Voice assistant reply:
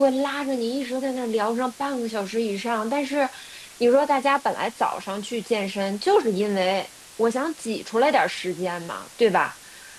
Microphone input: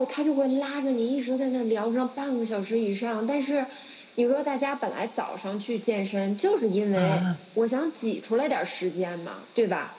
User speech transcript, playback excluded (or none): 啊